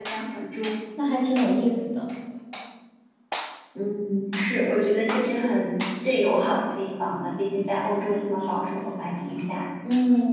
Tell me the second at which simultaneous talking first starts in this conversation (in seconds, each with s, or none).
none